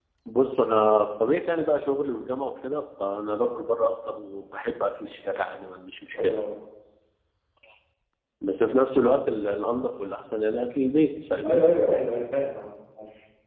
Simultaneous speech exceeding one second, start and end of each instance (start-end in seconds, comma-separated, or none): none